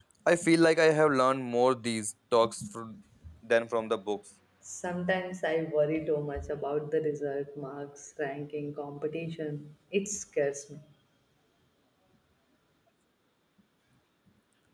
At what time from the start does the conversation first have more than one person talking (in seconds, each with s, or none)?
none